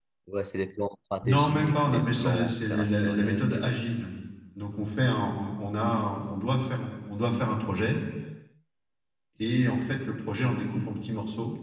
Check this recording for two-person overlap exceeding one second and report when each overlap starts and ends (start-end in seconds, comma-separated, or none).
1.2-3.7